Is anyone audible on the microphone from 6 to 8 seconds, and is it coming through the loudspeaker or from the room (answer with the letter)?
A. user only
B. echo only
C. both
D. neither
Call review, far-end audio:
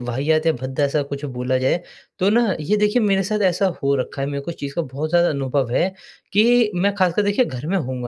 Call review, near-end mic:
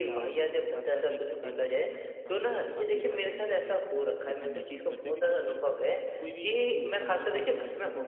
C